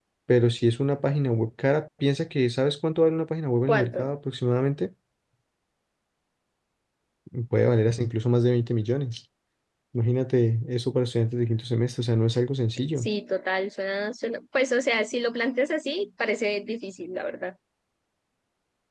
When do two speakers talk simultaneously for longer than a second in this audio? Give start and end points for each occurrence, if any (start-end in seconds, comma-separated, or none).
none